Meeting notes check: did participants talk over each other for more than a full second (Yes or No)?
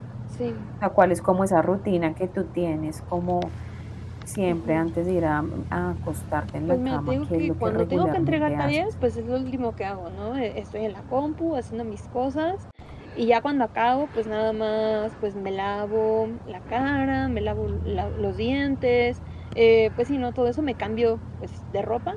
Yes